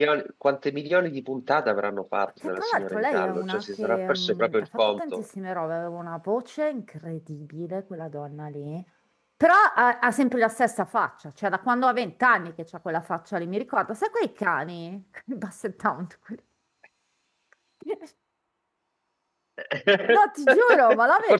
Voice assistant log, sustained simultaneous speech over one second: present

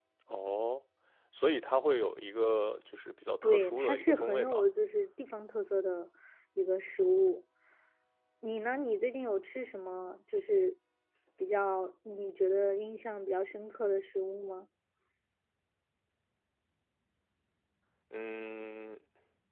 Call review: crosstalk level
present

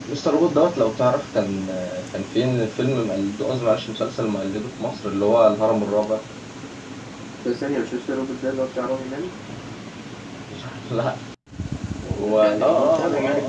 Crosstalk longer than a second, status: present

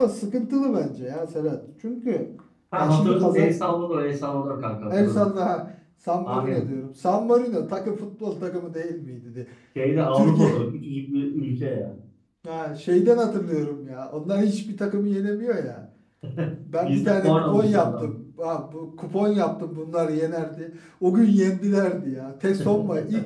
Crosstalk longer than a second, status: present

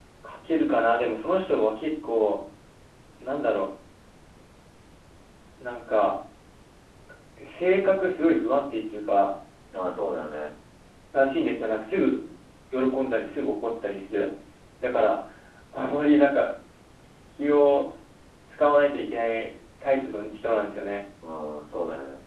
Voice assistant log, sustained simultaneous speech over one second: none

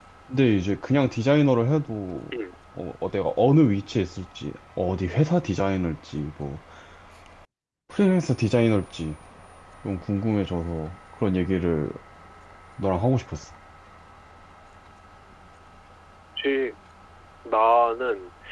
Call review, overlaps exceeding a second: none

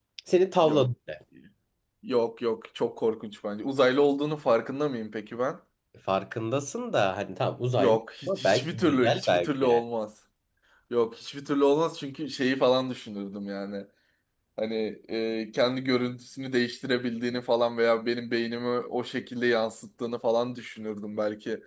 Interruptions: present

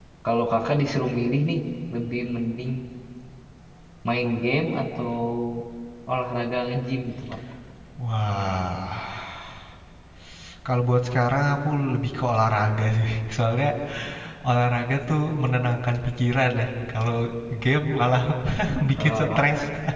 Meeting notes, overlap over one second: none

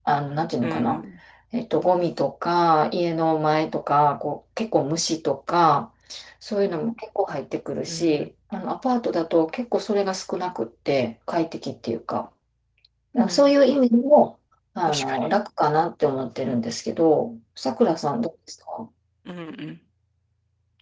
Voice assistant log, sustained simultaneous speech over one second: none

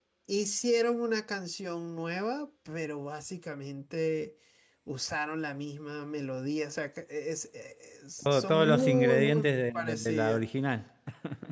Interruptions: present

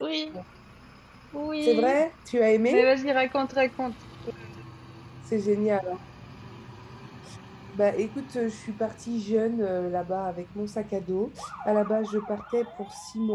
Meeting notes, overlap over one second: none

